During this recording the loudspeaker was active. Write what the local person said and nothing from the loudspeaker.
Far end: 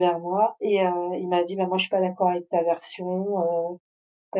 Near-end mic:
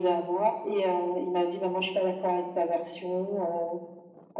none

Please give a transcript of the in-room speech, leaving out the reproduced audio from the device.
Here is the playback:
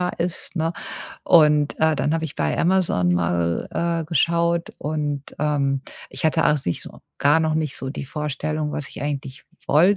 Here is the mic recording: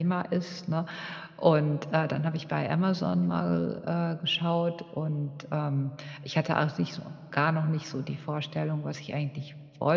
none

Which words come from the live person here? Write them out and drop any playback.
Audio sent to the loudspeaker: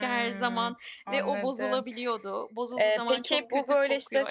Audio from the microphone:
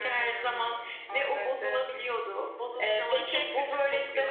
Hiç olmadı.

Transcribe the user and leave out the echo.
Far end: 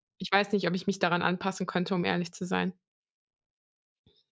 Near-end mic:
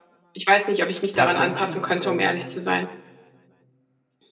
tatsächlich, ähm

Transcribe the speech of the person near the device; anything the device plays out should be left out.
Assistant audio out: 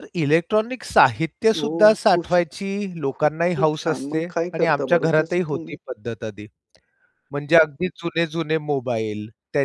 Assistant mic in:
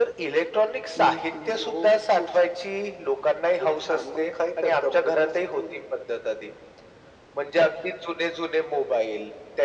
की अ

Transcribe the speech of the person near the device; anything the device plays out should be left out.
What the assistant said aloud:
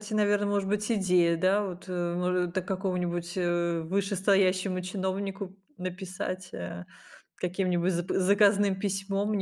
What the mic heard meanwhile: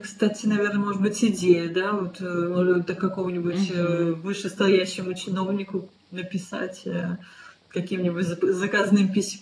Мгм.

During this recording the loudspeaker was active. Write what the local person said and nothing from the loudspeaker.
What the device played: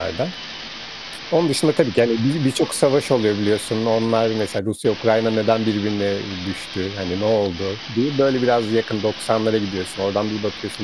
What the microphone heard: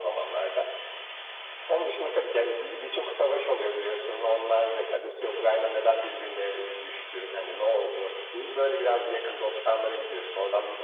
none

